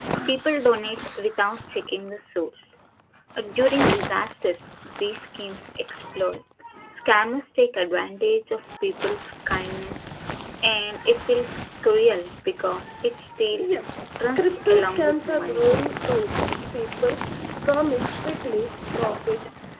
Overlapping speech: Yes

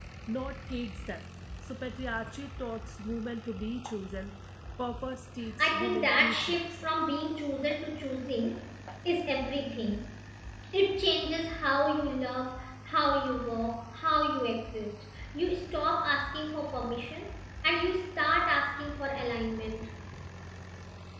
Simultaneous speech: Yes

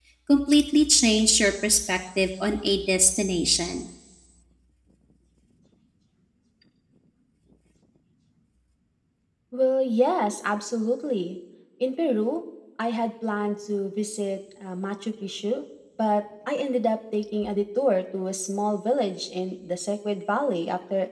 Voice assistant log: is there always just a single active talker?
Yes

